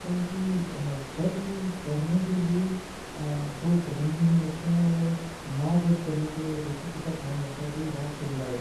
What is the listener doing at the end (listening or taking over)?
taking over